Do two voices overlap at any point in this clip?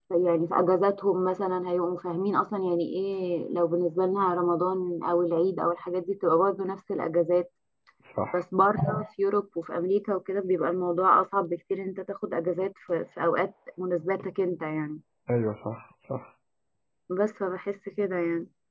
No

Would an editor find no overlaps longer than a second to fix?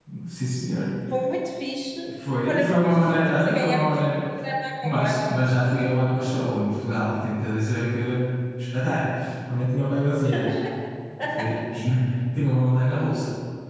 No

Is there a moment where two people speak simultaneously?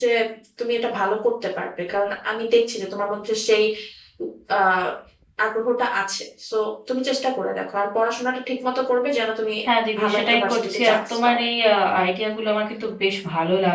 Yes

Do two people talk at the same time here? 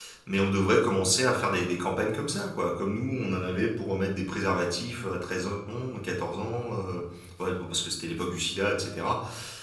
No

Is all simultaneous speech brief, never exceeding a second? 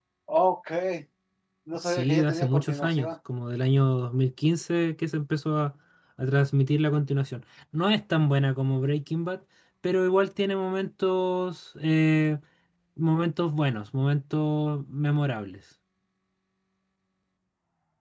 No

